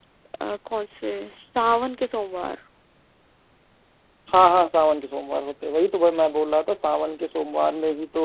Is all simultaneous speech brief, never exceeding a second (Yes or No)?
Yes